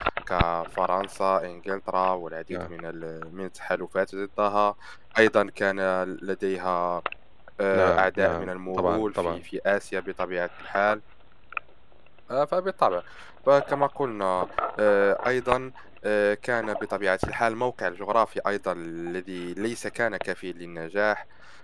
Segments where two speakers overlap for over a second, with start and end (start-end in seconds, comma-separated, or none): 7.7-9.4